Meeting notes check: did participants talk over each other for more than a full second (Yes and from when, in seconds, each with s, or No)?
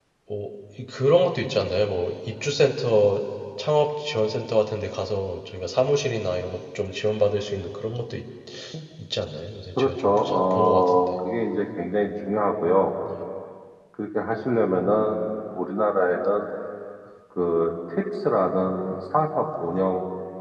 Yes, from 9.8 s